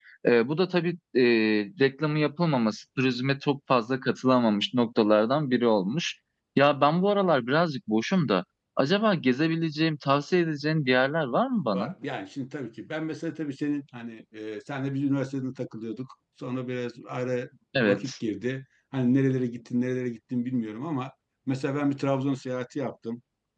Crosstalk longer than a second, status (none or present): none